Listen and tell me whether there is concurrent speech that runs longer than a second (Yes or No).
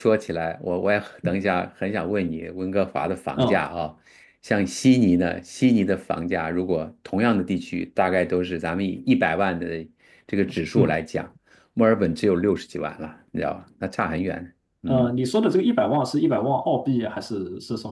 No